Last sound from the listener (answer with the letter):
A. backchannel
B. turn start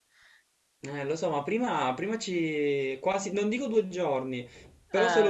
A